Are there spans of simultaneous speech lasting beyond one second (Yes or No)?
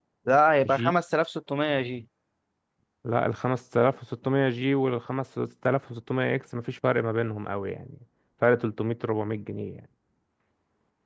No